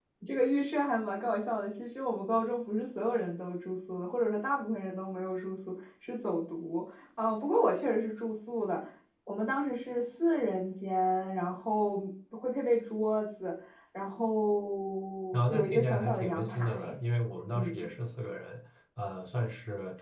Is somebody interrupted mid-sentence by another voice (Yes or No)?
Yes